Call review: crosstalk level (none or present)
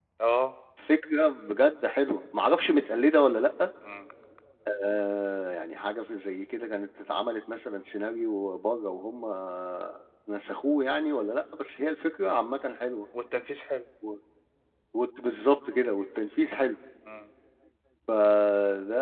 none